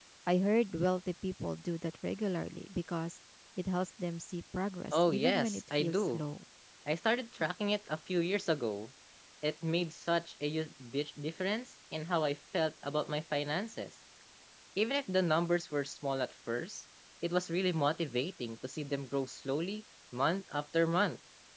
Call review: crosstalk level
present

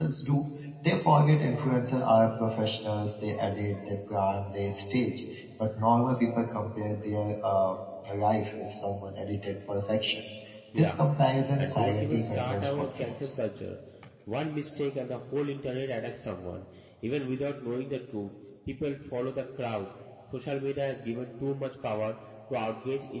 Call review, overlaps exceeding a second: present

